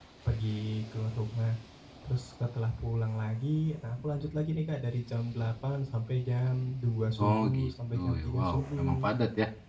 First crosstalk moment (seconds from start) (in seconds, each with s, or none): 7.2 s